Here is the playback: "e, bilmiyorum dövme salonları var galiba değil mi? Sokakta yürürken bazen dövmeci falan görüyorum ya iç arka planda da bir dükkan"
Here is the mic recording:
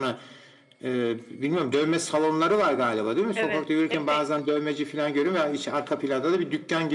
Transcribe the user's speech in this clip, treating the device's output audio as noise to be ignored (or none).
Evet, epey